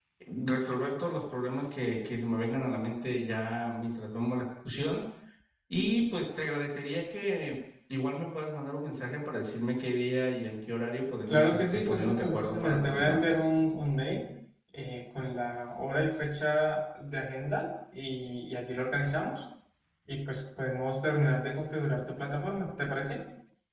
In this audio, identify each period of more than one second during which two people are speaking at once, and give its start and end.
11.3-13.2

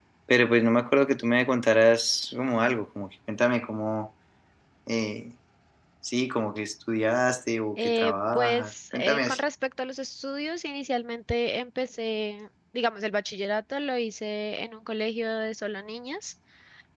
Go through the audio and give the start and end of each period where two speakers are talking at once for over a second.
7.8-9.4

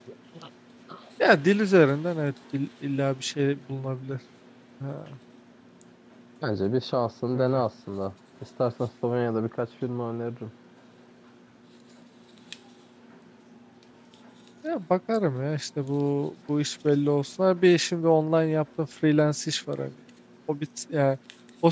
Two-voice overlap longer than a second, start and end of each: none

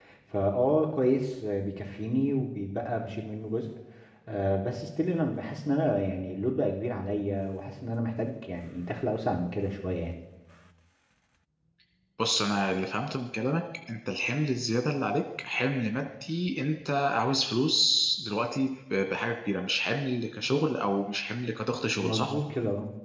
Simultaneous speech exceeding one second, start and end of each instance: none

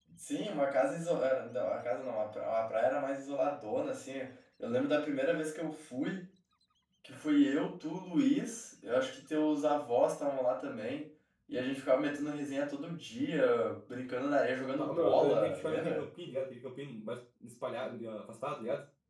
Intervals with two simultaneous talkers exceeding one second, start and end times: 14.8-16.1

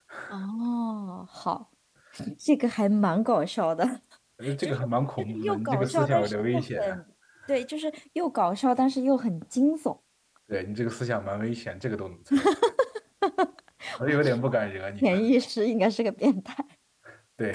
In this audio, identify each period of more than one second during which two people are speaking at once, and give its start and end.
5.2-7.0

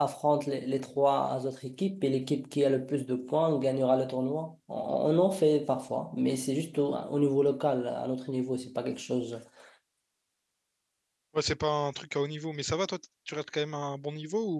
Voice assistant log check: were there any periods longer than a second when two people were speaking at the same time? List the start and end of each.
none

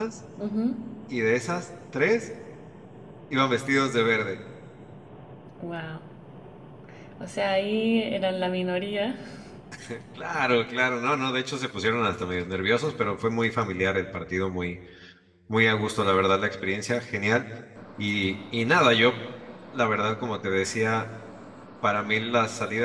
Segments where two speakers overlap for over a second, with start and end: none

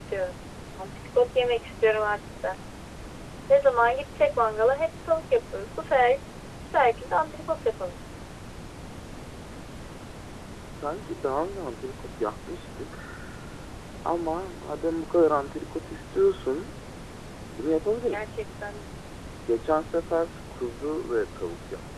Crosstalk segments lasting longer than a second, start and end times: none

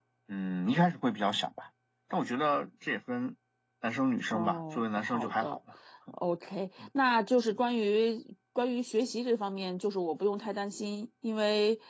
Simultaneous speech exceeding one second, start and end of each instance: 4.3-5.6

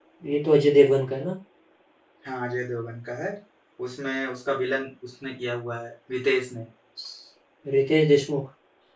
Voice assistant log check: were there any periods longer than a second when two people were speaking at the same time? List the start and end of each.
none

